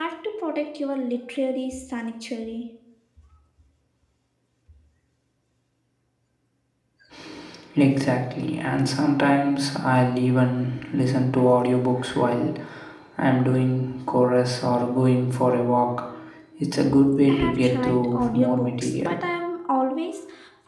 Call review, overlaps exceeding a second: present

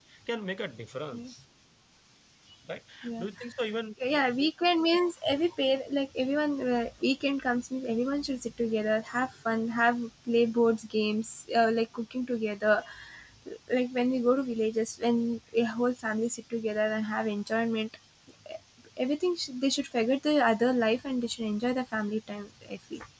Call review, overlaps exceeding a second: none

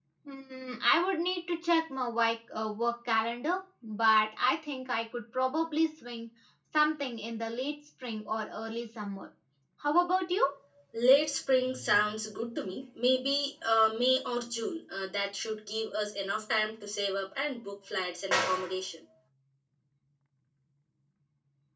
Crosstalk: none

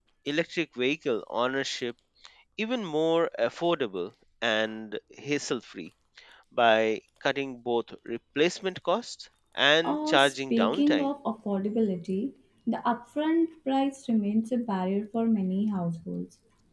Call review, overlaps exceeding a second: present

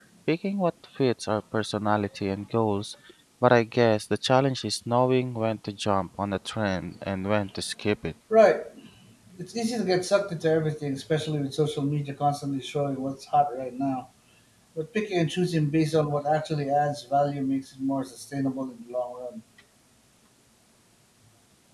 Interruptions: none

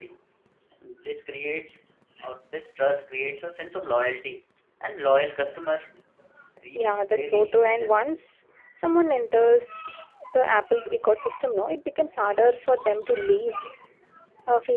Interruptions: present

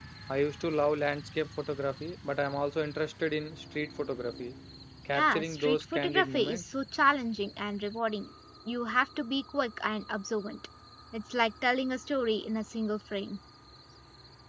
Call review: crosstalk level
present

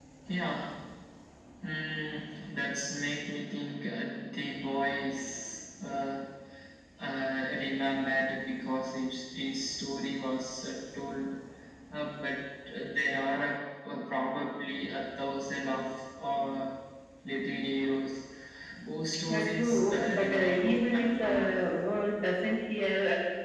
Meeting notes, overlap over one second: present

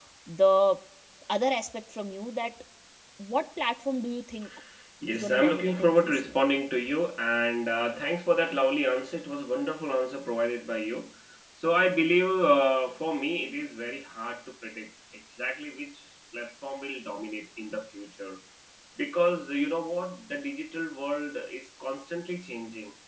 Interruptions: present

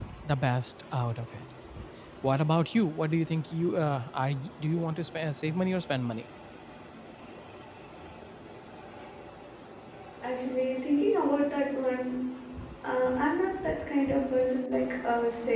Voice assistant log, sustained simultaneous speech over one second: none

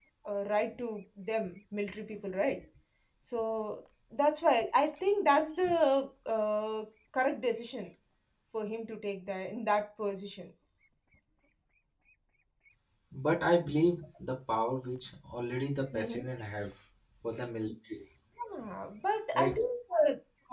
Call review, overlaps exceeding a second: none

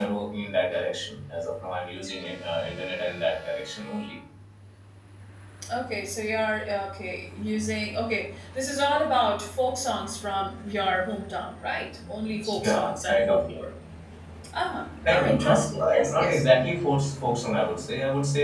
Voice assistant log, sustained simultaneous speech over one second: present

